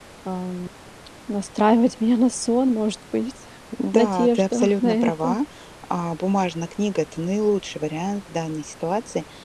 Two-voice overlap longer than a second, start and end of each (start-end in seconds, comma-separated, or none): 3.9-5.4